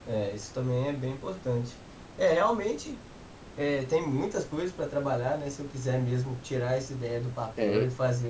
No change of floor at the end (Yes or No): Yes